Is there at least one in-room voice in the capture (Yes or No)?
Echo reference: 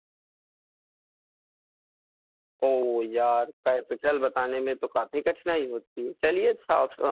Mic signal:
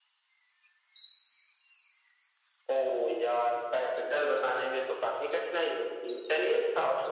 No